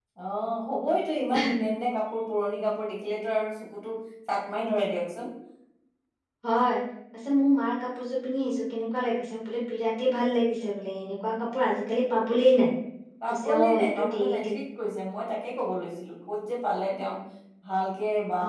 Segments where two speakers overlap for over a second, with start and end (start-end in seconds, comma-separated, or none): 13.3-14.5